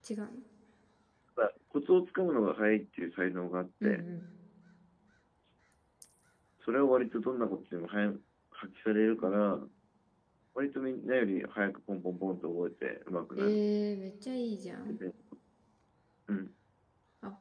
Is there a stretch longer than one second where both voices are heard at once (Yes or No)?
No